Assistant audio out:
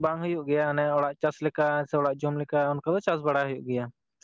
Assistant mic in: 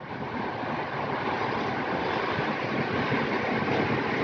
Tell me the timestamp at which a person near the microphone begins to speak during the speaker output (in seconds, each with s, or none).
none